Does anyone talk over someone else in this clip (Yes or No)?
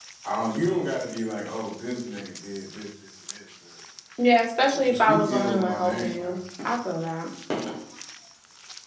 Yes